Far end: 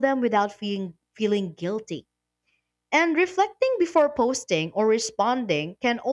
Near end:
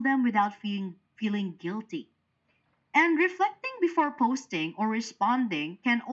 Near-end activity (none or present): none